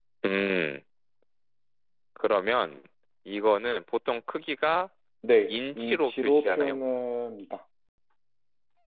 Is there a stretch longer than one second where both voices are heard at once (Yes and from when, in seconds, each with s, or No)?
Yes, from 5.5 s